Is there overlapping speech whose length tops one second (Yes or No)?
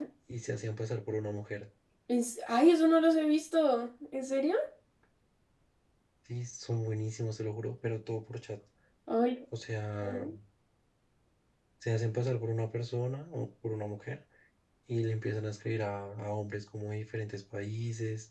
No